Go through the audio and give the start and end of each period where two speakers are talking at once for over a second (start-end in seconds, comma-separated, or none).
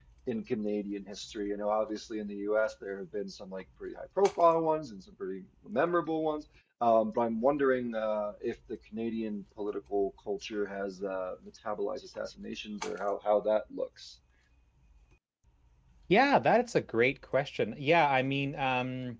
none